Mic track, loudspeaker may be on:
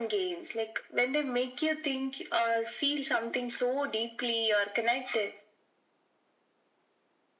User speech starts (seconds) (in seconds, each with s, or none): none